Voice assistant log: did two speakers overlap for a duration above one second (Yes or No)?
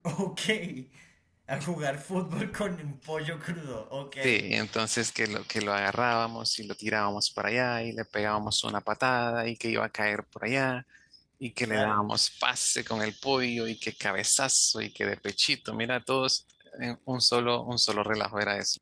No